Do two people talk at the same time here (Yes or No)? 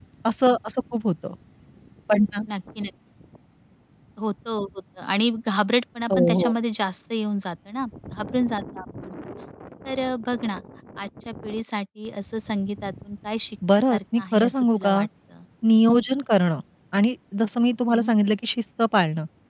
Yes